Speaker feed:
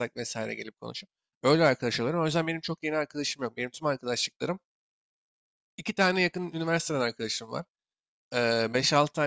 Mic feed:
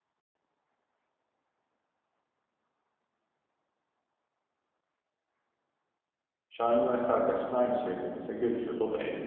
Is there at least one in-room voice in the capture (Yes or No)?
Yes